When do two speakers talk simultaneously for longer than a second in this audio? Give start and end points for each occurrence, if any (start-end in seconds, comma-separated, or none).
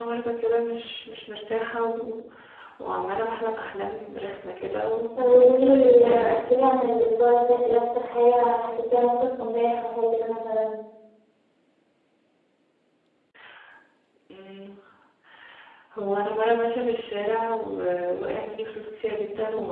5.2-6.4